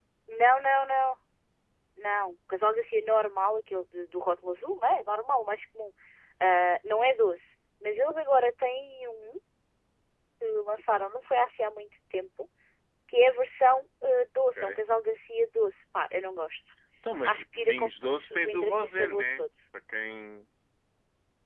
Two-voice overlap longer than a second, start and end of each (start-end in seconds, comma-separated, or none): 17.2-19.4